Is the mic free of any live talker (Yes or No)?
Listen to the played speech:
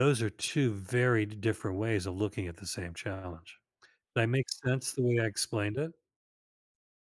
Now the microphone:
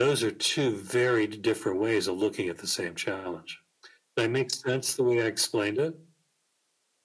Yes